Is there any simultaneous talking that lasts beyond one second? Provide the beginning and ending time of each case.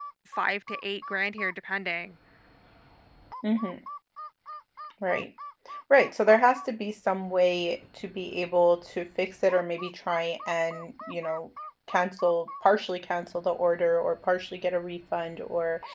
none

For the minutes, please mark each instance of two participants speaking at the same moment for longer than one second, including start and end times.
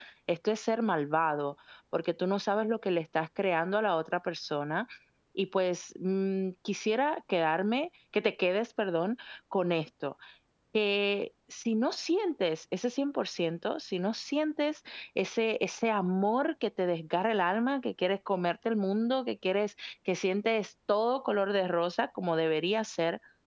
none

